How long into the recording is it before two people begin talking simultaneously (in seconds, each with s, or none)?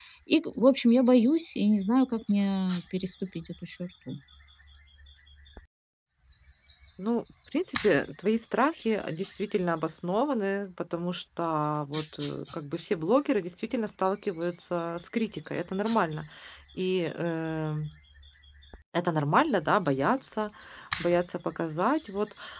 none